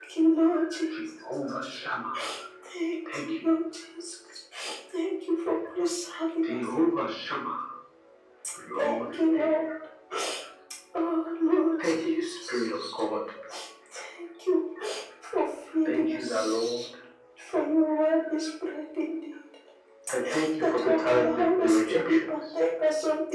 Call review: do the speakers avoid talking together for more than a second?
No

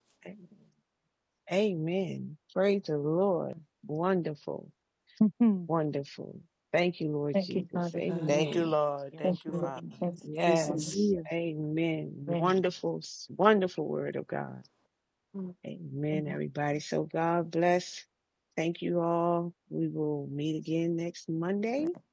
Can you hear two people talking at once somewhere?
Yes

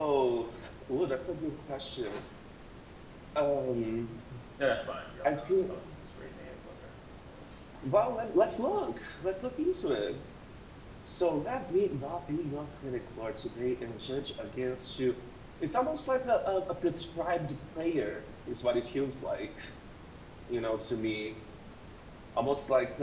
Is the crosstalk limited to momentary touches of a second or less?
Yes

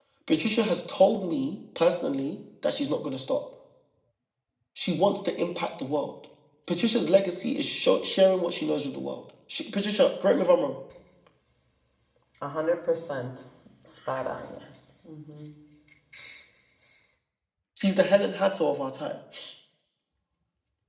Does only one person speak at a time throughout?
Yes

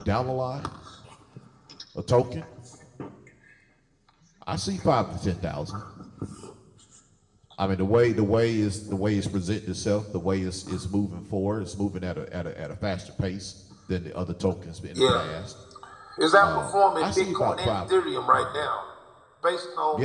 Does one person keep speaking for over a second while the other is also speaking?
Yes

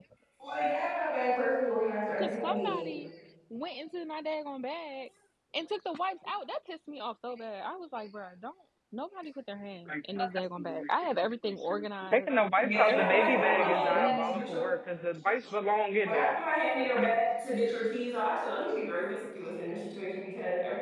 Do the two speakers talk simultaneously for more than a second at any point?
Yes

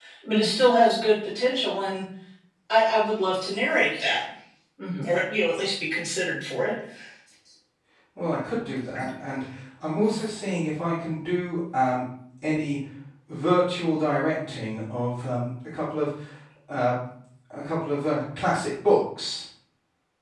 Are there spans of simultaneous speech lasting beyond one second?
No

